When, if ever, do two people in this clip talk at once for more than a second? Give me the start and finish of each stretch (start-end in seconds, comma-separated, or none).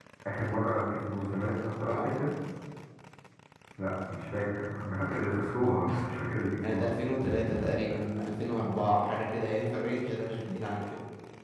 none